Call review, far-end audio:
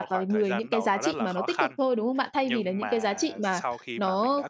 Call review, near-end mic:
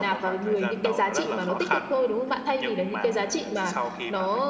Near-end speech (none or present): none